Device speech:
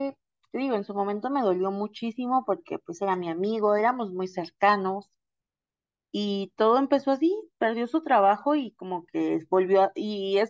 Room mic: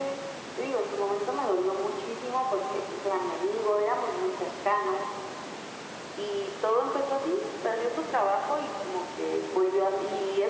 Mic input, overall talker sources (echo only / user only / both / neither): echo only